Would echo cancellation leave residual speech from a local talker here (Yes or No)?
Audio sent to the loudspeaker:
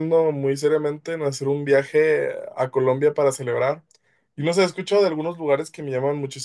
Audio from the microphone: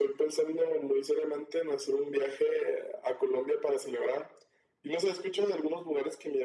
No